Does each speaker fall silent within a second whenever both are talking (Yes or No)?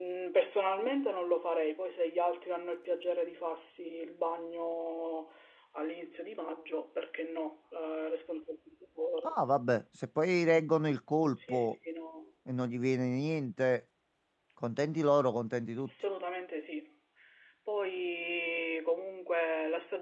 Yes